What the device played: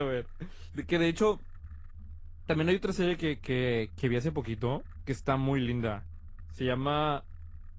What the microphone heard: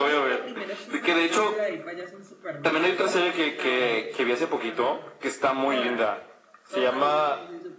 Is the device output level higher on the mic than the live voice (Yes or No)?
Yes